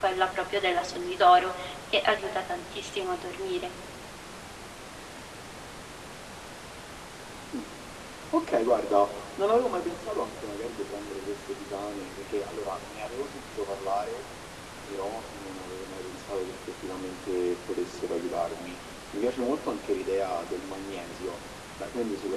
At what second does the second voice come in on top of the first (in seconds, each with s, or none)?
none